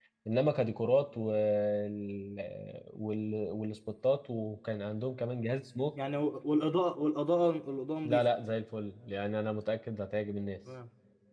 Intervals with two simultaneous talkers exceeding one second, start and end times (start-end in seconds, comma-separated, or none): none